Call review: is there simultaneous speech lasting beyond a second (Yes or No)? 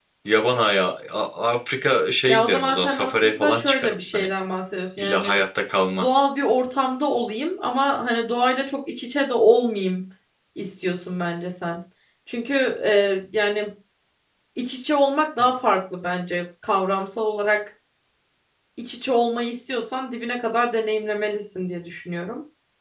Yes